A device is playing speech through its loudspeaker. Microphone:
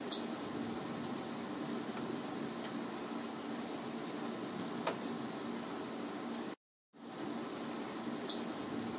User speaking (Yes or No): No